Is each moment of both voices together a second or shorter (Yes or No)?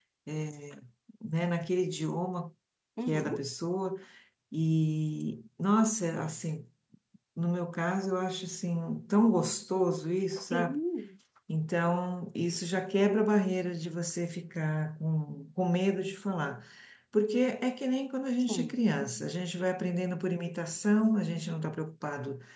Yes